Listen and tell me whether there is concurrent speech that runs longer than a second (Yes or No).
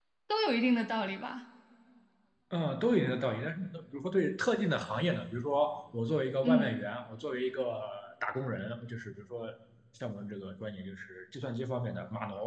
No